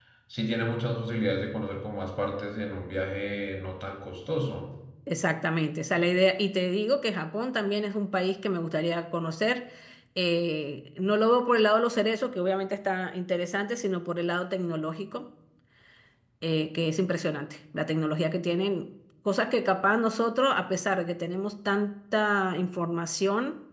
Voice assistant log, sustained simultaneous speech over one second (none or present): none